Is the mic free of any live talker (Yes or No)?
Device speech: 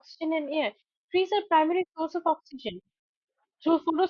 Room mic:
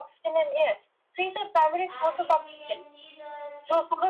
No